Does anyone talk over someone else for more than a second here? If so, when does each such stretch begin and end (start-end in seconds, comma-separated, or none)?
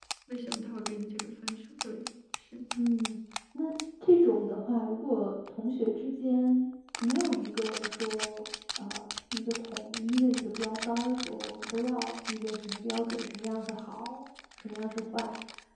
none